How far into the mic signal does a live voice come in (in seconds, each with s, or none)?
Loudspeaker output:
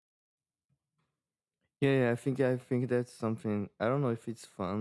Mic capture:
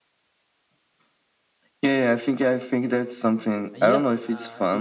3.7 s